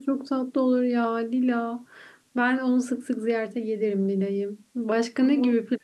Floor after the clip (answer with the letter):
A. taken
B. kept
B